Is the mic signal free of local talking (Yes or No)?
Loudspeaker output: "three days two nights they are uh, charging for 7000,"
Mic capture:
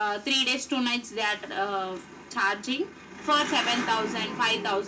Yes